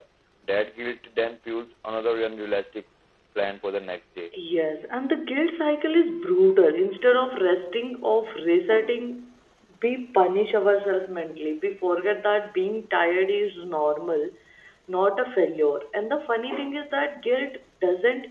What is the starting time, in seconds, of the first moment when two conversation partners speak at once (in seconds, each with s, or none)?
none